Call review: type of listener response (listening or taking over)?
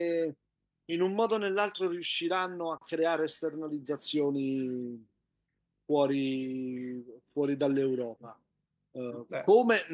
listening